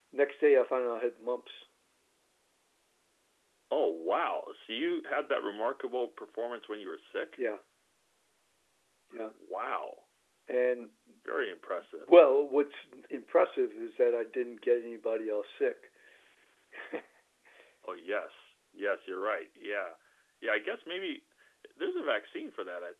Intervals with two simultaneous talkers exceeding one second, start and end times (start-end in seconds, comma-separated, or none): none